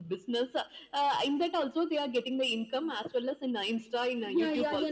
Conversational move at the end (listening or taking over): taking over